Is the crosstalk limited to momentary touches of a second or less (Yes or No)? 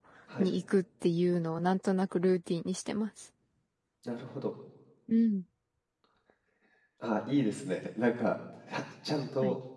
Yes